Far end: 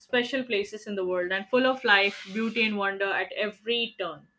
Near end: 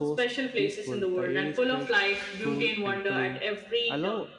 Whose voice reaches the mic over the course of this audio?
both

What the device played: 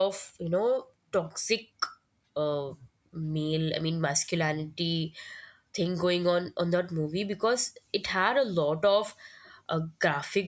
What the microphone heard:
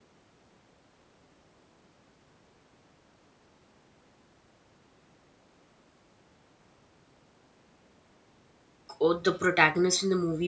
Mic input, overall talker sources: user only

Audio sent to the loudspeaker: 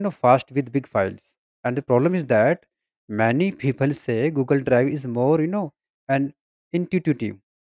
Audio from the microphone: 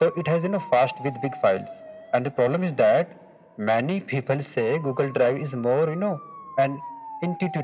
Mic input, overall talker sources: echo only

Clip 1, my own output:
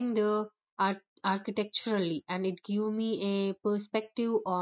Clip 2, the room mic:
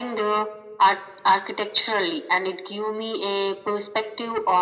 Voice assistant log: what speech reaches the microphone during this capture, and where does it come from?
echo only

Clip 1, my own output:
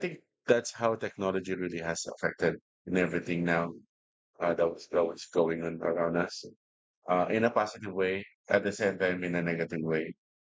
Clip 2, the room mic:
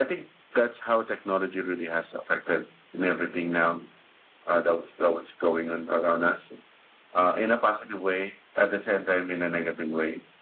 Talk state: echo only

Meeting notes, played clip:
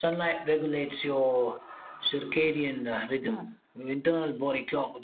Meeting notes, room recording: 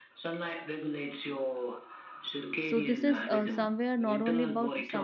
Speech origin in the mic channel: both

